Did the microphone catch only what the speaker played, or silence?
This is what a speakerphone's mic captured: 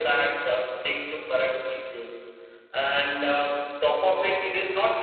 Yes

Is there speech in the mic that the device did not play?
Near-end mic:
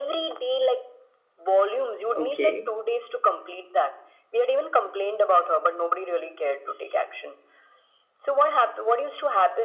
Yes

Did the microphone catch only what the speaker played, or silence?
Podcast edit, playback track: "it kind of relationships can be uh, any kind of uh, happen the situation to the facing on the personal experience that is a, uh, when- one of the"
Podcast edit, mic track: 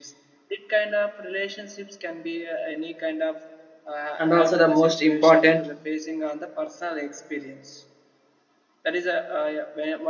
No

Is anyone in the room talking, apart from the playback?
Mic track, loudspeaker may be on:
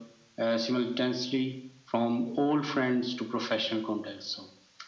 No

